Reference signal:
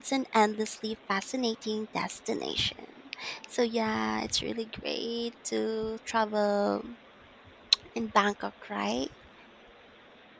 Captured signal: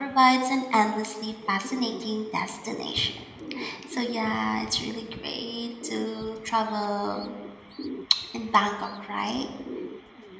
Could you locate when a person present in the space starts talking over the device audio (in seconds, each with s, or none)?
none